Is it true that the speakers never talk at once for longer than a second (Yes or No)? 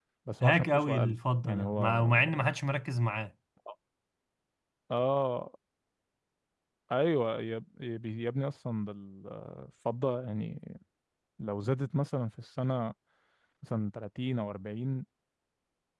No